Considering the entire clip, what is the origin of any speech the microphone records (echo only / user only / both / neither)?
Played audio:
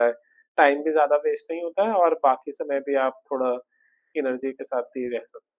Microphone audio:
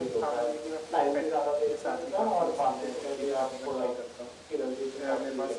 both